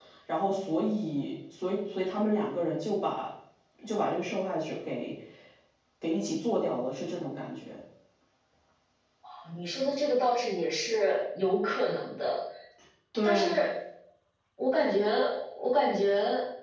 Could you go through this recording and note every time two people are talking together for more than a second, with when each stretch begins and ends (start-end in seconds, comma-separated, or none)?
none